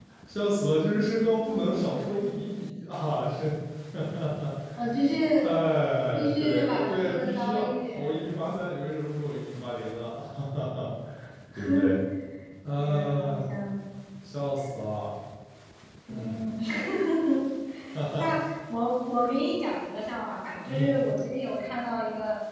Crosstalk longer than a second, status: present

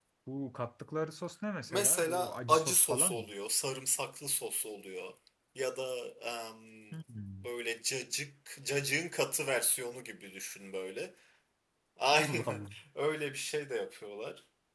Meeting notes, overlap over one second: present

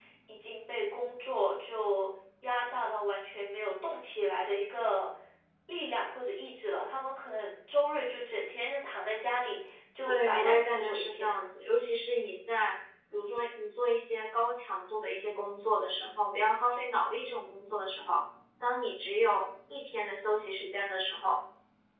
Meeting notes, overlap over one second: present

